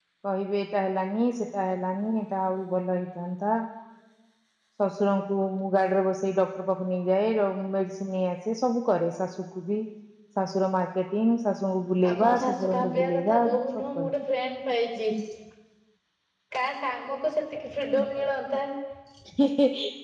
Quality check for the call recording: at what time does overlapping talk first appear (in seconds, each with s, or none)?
12.1 s